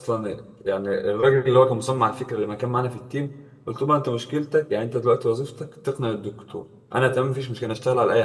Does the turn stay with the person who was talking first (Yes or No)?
Yes